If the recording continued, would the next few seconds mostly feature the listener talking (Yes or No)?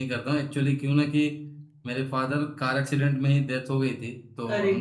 No